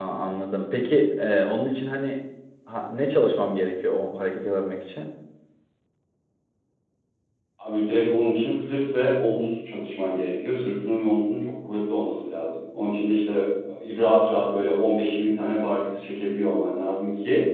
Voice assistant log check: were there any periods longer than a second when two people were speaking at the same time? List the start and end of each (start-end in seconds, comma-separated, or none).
none